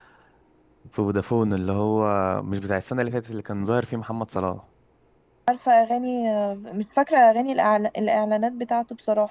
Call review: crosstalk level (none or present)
none